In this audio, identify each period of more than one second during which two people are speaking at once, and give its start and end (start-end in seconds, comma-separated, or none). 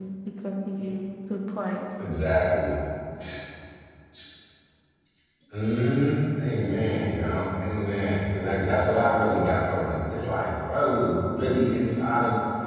none